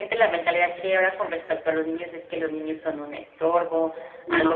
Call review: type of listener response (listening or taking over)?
listening